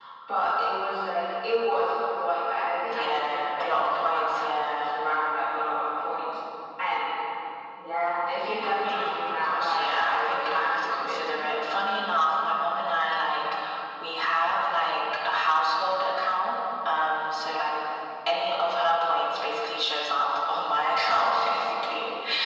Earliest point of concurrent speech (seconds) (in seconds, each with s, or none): 2.9 s